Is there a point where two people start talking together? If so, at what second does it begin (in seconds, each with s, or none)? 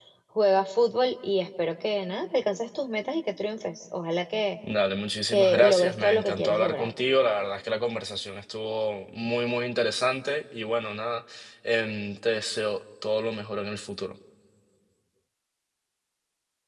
5.3 s